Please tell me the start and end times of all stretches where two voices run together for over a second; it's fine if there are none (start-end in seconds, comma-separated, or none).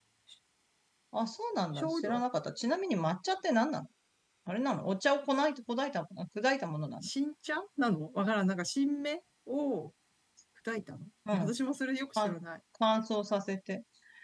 none